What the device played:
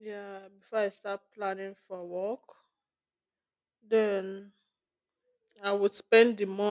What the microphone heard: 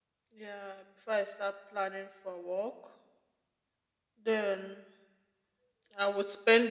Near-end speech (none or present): none